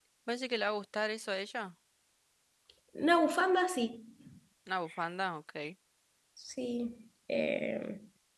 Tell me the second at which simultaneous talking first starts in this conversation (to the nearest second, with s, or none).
none